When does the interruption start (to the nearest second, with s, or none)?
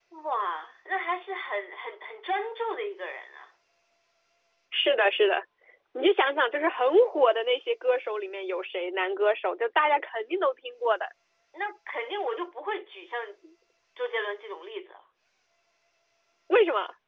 none